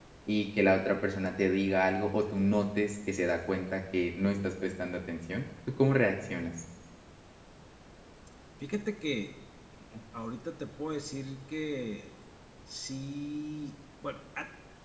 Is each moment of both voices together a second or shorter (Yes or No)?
Yes